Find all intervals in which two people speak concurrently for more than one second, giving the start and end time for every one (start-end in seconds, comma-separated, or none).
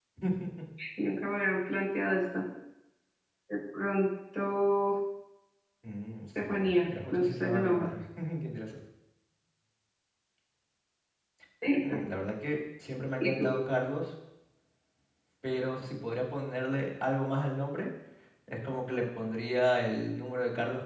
6.4-7.9